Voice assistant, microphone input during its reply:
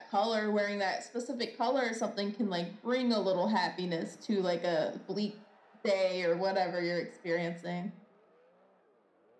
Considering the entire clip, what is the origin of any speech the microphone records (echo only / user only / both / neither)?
echo only